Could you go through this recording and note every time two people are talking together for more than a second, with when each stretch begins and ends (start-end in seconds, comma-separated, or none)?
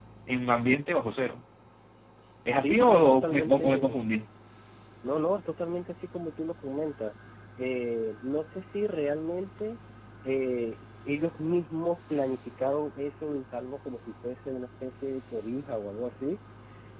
2.6-4.0